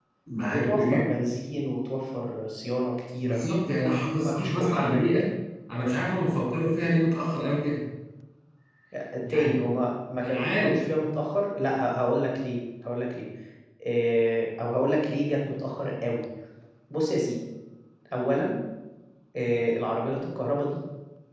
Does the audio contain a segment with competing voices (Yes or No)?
Yes